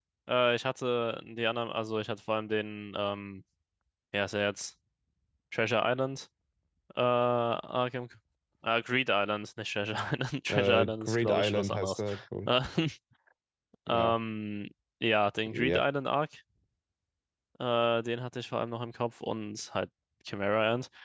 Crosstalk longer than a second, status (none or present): present